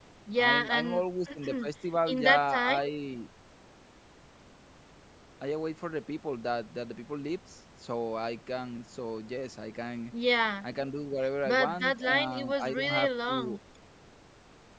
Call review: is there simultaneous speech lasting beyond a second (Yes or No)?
Yes